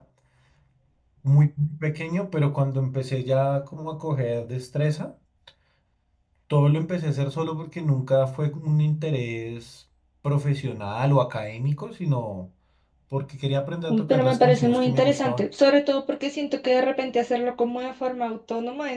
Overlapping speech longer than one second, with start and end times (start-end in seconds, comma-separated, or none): 13.9-15.4